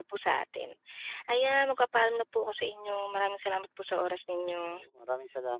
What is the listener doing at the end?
taking over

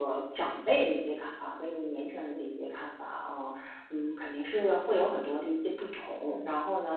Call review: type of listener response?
listening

